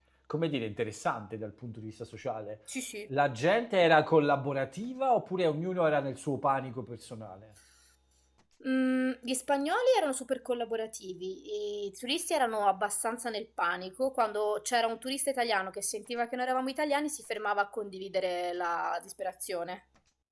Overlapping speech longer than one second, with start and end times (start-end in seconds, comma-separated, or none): none